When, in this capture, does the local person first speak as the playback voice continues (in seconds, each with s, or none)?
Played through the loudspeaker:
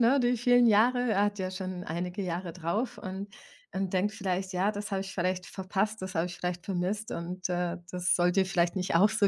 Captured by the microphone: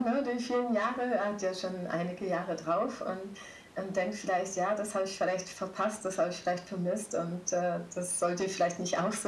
none